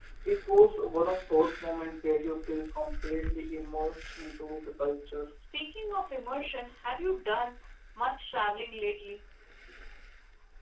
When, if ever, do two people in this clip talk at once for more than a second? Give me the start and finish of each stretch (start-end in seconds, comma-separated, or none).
none